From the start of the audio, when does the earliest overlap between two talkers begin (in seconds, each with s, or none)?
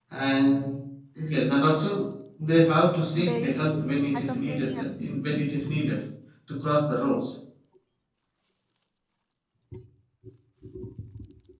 3.2 s